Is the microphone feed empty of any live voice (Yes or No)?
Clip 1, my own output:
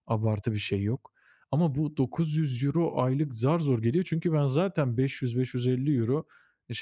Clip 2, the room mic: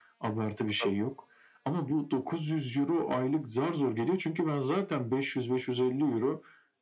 No